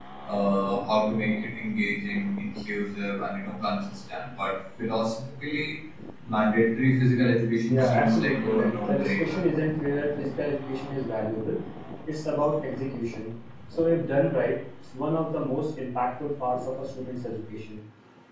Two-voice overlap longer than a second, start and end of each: 7.7-9.4

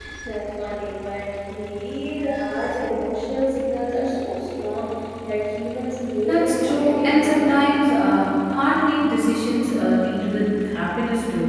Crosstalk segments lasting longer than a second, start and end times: 6.2-7.6

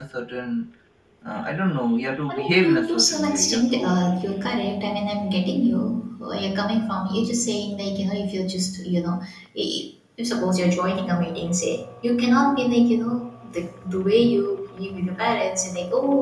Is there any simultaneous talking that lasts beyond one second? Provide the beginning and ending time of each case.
2.3-4.0

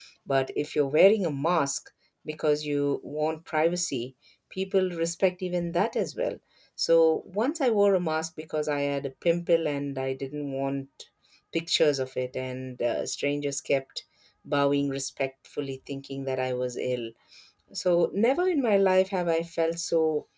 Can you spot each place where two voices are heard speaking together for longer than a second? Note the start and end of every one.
none

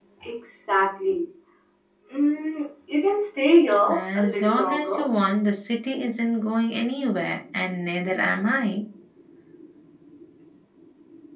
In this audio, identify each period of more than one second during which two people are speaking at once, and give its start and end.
3.9-5.1

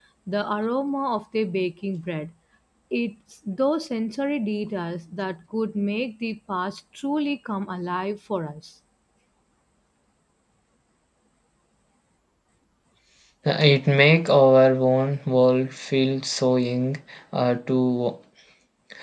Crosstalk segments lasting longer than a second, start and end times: none

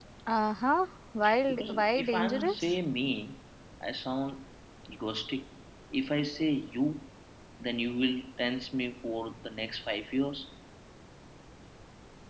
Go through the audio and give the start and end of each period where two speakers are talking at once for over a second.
1.5-2.7

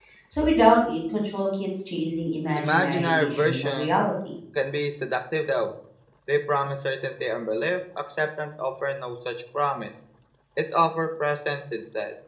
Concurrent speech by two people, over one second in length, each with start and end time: 2.6-4.0

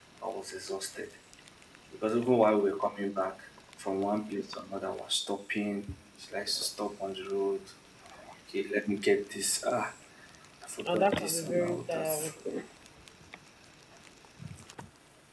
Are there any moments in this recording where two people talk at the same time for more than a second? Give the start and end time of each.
10.8-12.3

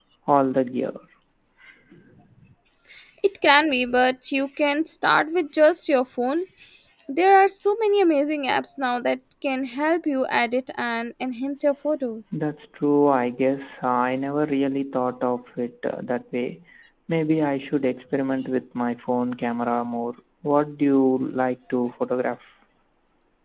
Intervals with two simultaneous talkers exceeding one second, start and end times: none

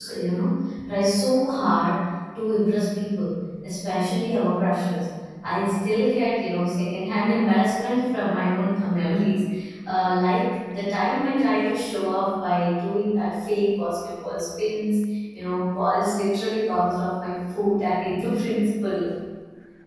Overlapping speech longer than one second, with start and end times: none

